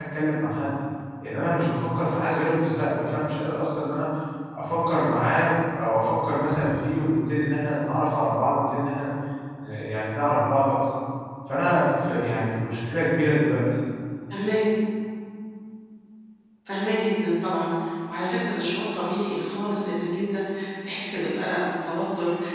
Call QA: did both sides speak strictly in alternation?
Yes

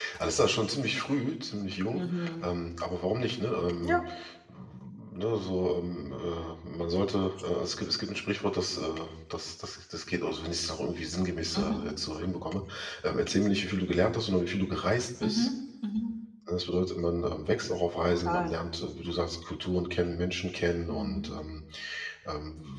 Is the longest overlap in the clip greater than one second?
No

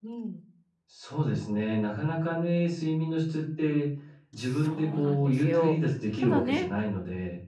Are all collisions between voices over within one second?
No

